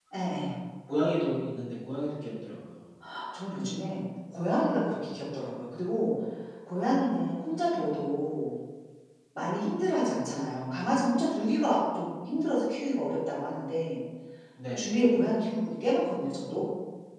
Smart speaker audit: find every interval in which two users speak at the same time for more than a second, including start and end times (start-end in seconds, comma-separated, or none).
none